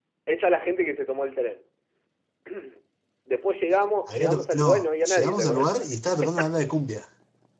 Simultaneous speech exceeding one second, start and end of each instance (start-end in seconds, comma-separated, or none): 4.1-5.7